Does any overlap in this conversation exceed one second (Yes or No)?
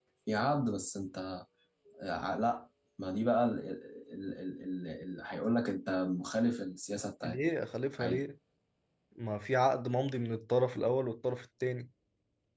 No